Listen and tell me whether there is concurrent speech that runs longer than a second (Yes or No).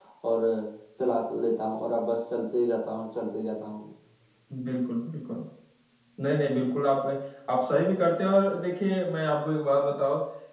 No